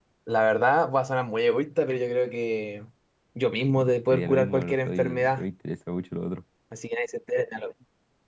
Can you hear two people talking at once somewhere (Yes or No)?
Yes